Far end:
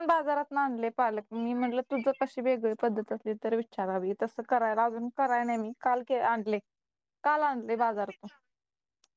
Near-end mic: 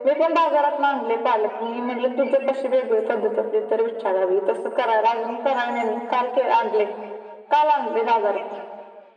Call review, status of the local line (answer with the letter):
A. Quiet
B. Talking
A